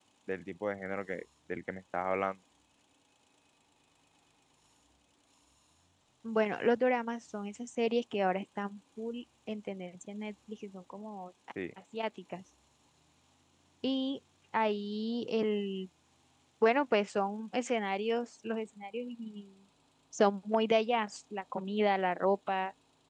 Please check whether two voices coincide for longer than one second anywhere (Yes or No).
No